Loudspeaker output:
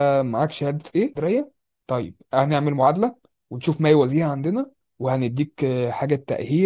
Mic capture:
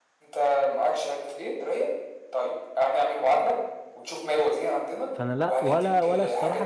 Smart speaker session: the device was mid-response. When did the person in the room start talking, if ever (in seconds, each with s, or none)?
5.1 s